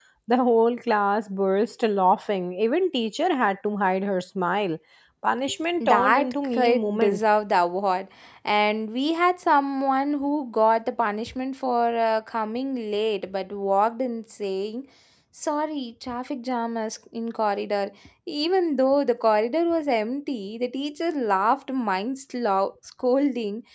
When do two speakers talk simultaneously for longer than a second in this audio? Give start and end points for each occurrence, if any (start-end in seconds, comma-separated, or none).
5.8-7.2